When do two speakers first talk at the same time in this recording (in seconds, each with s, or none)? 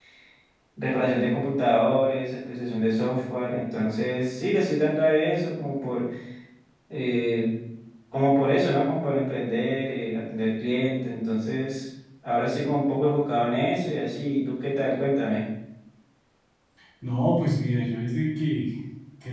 none